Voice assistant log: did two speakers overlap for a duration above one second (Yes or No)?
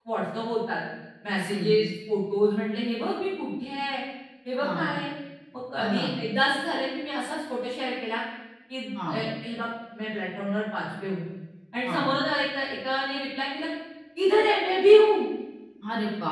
No